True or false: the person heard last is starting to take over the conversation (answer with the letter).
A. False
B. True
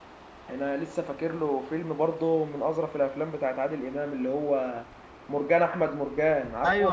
B